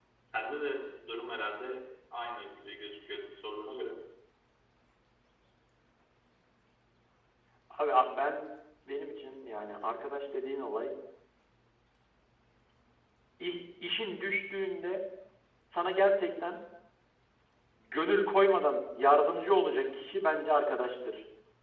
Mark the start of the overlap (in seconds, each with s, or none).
none